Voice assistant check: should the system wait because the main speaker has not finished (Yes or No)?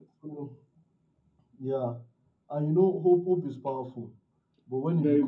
Yes